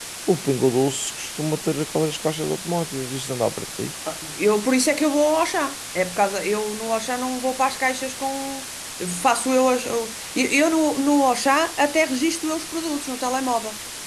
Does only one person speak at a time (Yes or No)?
Yes